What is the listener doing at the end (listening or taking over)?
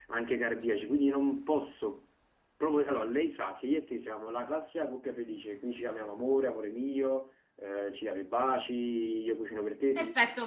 taking over